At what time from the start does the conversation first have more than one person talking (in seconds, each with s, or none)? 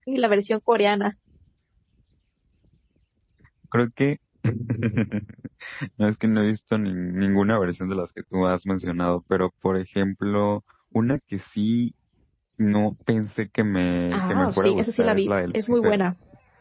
14.1 s